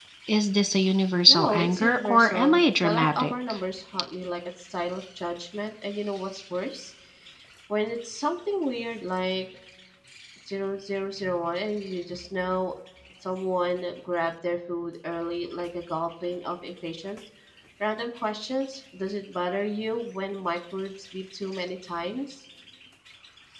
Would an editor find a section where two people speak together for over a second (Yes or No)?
Yes